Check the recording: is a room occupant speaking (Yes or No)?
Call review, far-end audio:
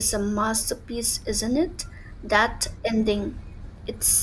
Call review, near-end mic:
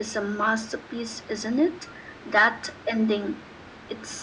No